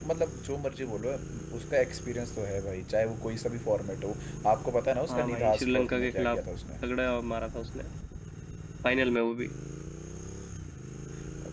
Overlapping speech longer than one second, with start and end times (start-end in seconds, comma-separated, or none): 5.1-6.4